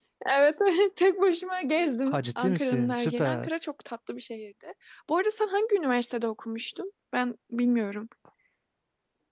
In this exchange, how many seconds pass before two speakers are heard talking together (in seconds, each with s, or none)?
2.1 s